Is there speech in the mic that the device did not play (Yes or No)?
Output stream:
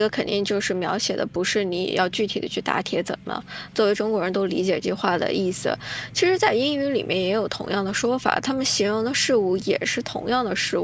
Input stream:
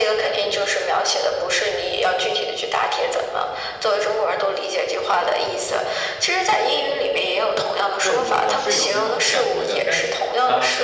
Yes